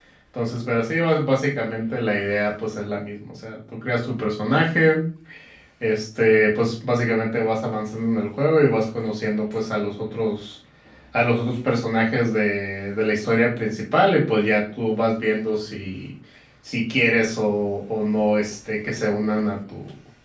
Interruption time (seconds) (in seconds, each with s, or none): none